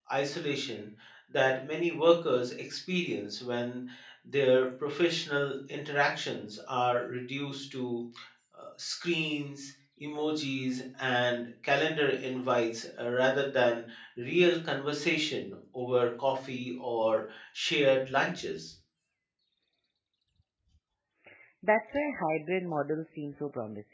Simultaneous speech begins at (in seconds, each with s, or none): none